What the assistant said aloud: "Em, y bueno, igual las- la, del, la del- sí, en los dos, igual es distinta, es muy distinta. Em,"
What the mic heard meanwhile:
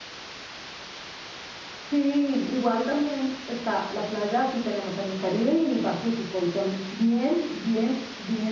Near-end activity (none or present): present